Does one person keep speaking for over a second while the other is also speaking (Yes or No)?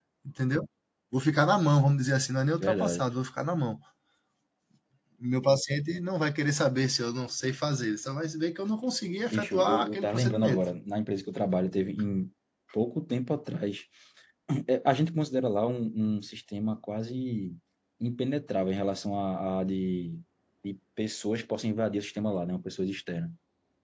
Yes